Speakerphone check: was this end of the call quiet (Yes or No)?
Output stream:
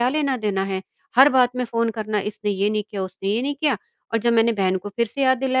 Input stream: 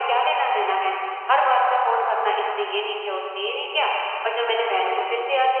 Yes